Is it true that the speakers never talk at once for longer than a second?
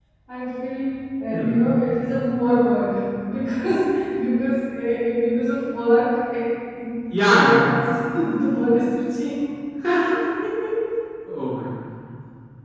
Yes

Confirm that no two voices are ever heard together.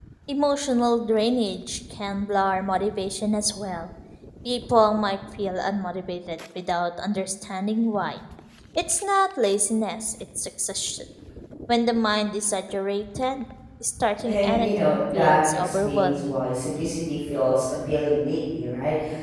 No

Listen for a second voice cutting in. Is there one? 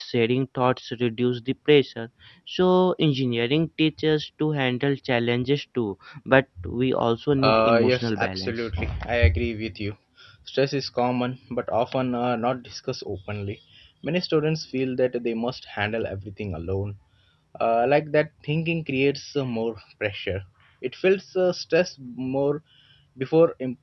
Yes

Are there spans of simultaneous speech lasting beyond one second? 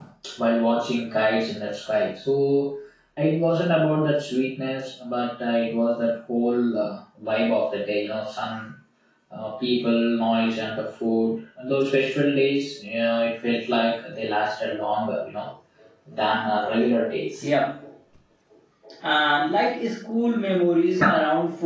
No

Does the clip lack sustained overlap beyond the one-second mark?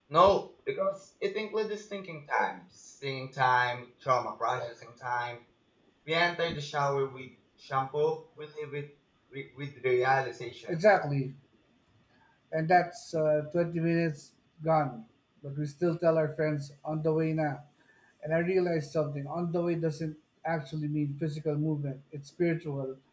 Yes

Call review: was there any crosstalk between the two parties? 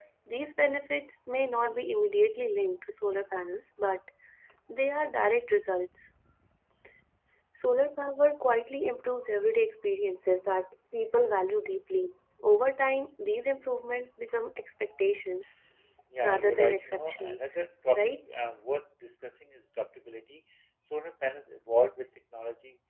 Yes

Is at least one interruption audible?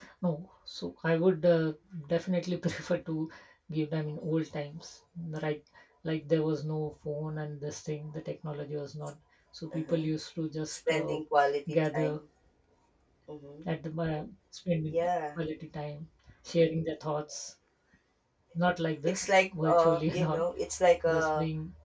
Yes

